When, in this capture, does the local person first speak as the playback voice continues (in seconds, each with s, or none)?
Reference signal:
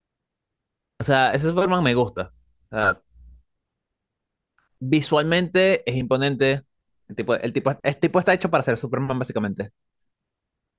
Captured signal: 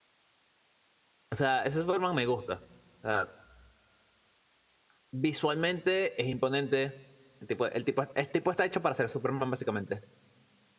none